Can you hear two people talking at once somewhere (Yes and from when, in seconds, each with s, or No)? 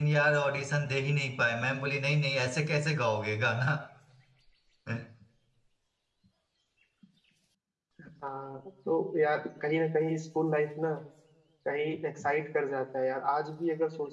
No